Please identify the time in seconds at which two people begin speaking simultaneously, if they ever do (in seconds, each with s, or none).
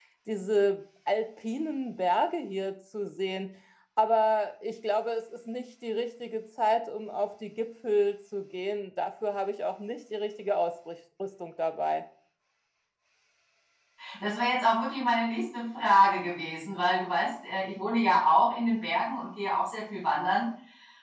none